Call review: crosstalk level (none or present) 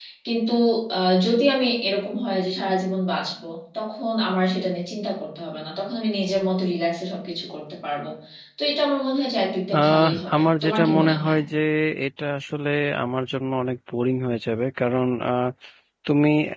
present